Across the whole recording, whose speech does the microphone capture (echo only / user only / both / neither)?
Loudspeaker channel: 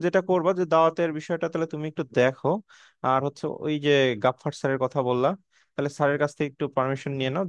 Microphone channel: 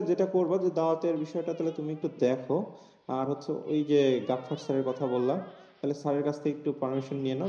echo only